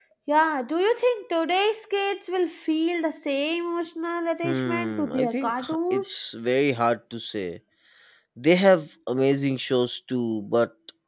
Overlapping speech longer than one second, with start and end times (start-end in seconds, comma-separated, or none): 4.4-6.2